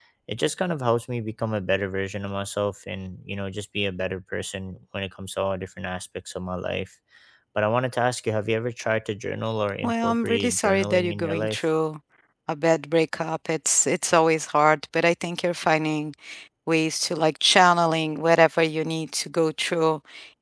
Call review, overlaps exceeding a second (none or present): present